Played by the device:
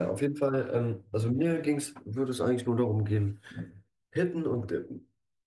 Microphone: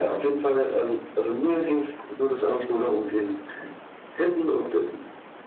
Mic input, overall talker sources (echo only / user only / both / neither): echo only